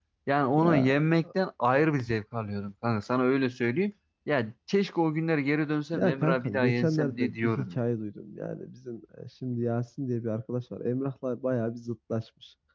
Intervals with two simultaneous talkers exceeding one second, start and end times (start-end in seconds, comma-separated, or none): 5.9-7.8